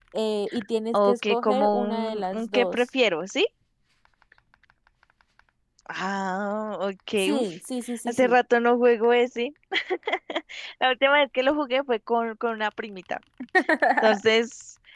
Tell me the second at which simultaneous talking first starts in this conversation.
1 s

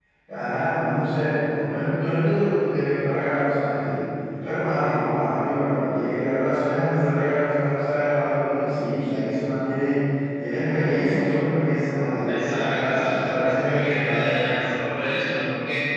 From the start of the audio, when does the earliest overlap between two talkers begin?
12 s

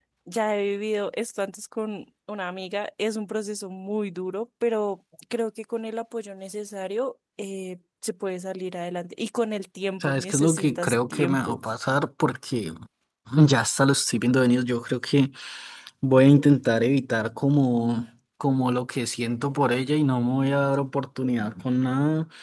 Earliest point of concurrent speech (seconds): 10 s

